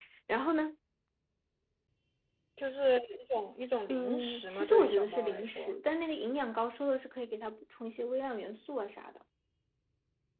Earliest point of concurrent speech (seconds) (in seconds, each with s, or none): 3.9 s